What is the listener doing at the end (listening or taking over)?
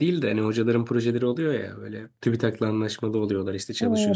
taking over